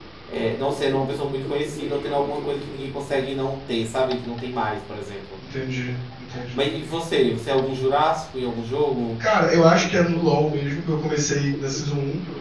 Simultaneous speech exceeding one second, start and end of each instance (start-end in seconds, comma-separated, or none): none